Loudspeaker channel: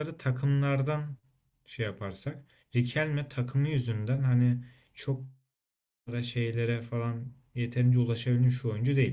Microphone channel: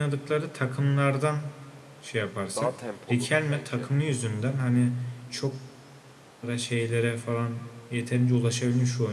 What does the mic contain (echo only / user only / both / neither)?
both